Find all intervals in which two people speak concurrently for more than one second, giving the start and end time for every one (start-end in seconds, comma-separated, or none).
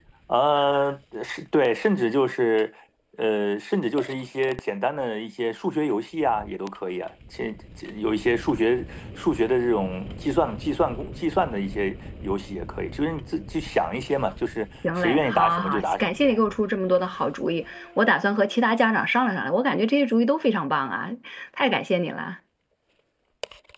15.0-16.4